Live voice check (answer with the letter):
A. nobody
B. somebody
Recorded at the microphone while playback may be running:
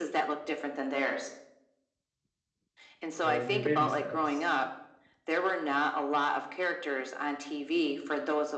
B